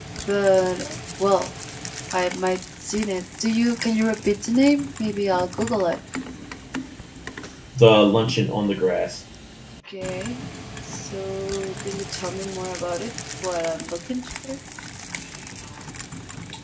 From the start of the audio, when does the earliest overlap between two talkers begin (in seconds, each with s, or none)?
none